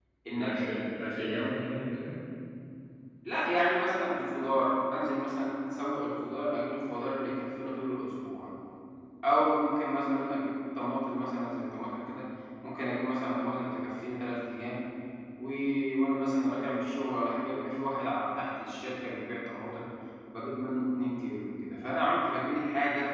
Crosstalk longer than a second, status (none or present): none